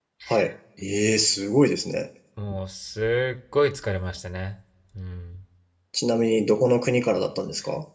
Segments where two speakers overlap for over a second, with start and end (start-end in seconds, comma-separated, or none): none